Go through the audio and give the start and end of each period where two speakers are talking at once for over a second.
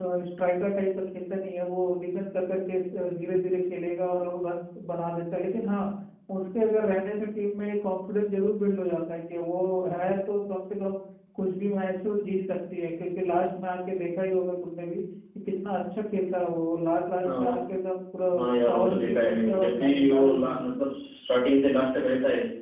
18.4-20.6

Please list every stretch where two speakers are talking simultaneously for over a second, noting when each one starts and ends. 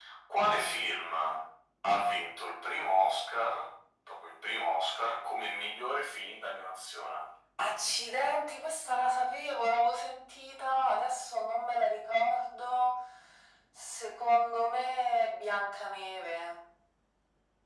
none

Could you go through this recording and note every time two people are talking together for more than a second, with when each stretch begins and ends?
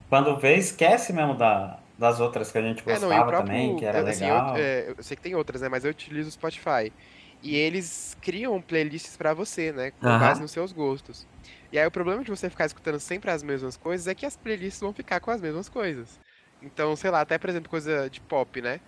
2.9-4.7

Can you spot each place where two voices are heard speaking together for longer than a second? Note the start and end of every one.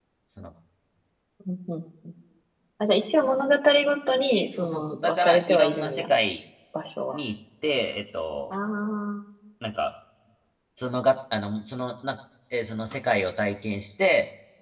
4.6-6.1

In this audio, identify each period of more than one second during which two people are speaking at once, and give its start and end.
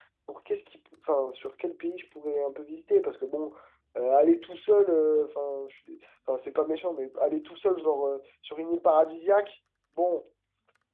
none

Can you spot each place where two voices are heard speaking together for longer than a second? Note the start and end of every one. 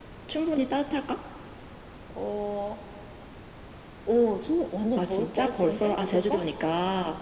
5.0-6.4

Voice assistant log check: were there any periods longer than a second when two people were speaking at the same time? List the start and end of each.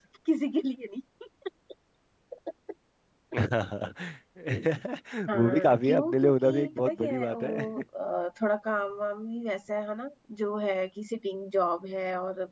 5.3-7.7

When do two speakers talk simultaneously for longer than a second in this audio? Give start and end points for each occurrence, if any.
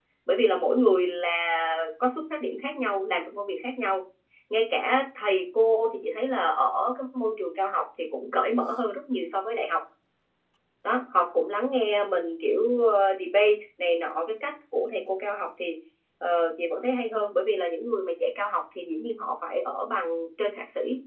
none

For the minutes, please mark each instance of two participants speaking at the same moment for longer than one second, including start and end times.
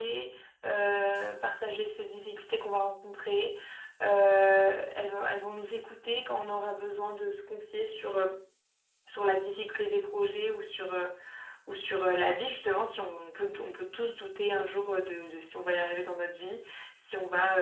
none

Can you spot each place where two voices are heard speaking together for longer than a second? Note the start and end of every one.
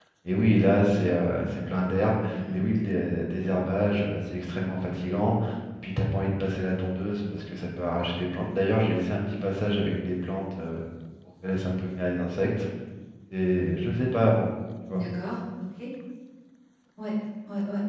none

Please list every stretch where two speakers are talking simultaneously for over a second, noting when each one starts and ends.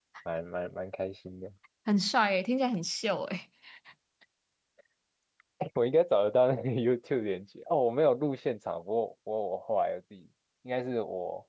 none

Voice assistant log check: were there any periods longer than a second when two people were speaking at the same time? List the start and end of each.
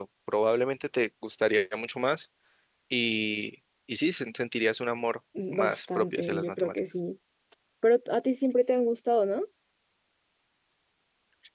5.5-6.8

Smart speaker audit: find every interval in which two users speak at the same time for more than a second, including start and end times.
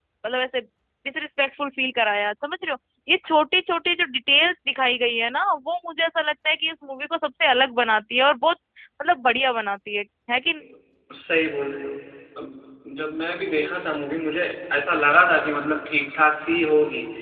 none

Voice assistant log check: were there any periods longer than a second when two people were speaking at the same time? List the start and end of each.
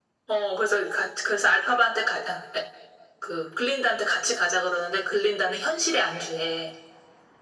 none

